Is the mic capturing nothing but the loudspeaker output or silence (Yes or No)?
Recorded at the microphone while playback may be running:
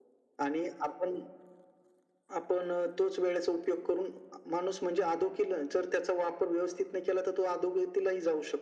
Yes